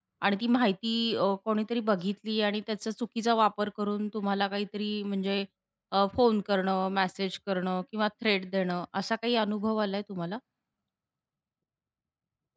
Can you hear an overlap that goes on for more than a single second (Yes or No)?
No